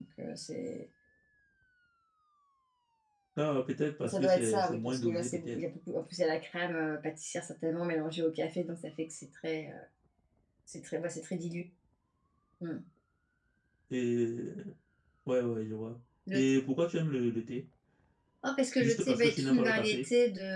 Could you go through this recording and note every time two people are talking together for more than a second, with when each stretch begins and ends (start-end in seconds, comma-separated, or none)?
4.0-5.6, 18.8-20.1